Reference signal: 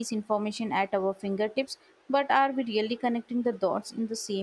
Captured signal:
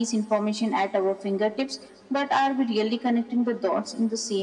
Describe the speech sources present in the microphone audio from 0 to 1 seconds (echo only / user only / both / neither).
echo only